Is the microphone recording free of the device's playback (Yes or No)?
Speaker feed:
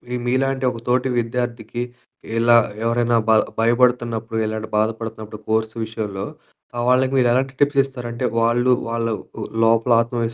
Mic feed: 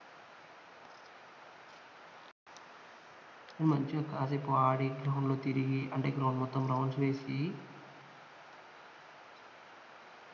Yes